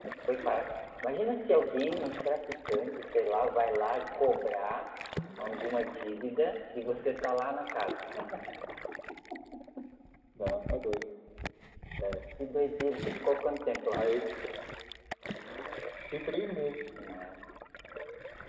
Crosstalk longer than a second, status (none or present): none